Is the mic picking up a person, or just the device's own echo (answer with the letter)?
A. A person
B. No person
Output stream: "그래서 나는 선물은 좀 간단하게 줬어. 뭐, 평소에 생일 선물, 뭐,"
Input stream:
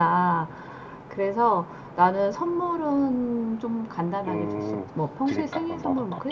A